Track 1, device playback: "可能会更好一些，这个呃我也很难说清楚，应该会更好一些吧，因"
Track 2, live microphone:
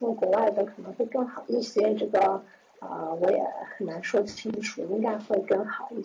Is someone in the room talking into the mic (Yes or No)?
No